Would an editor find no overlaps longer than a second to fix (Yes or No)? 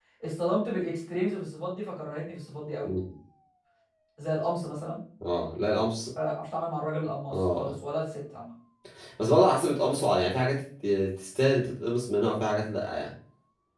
Yes